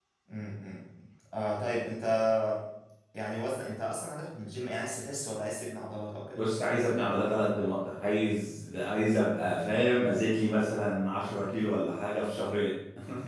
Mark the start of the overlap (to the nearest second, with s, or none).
none